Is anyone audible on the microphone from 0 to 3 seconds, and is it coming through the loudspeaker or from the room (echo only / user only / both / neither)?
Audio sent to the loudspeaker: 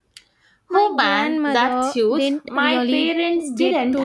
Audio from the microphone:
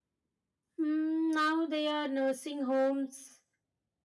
user only